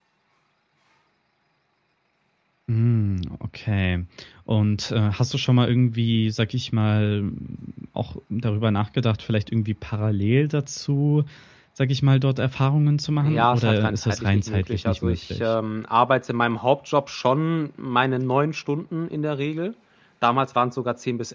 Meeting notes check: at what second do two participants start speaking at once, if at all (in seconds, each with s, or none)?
13.2 s